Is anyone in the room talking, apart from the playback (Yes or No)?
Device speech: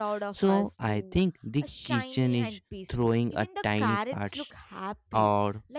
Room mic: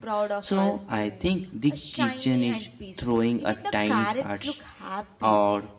No